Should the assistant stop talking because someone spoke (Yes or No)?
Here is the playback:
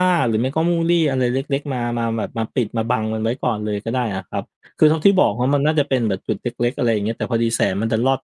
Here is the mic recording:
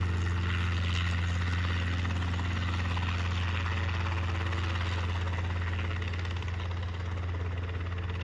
No